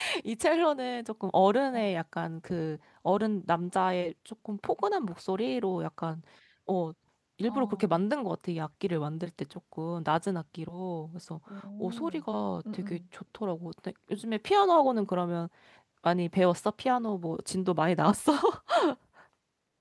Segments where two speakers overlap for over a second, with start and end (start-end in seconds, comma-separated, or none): none